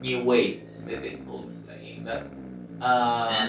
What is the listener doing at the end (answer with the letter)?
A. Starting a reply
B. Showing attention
B